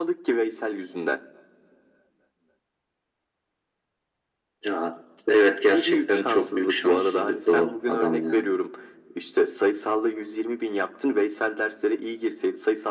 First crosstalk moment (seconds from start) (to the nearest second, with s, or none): 6 s